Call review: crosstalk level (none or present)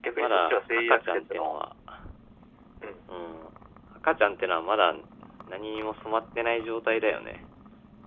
present